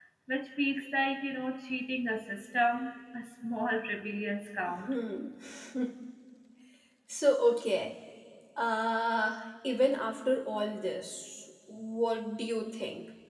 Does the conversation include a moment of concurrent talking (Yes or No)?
No